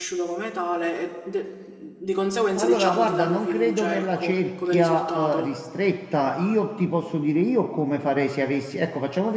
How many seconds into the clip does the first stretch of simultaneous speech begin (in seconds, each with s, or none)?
2.5 s